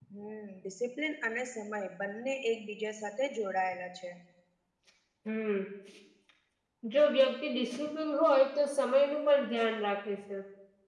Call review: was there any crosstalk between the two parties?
No

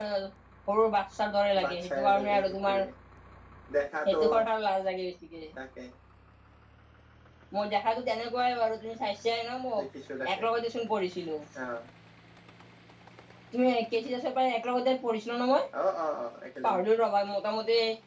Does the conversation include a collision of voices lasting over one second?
Yes, from 1.6 s

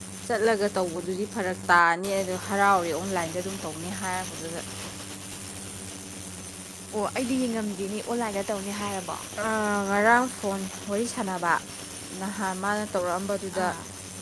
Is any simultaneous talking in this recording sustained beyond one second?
No

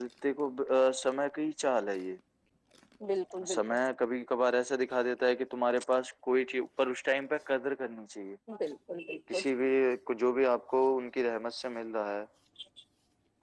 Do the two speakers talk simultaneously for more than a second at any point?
No

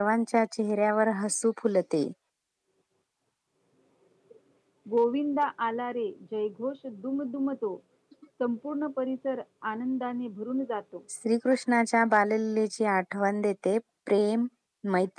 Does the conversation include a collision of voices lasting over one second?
No

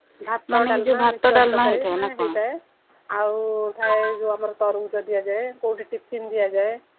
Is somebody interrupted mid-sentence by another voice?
Yes, from 0.5 s

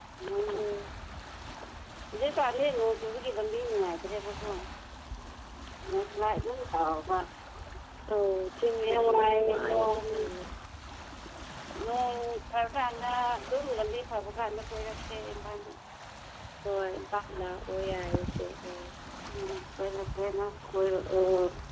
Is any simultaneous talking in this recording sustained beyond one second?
Yes, from 8.8 s

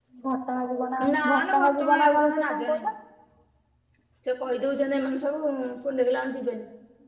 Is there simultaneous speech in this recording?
Yes, from 1.1 s

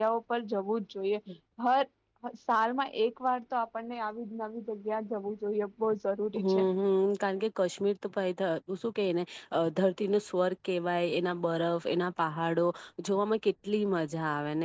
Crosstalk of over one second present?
No

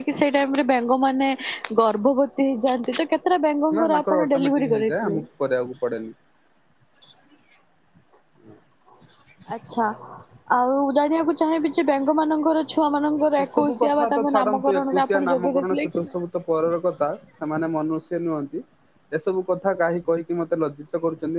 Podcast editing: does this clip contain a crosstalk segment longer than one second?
Yes, from 3.8 s

